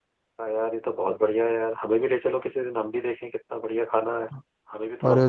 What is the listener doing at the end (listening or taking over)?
taking over